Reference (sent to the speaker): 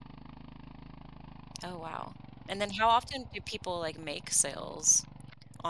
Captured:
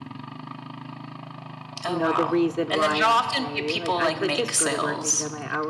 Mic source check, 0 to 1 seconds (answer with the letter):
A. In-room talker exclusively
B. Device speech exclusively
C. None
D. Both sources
C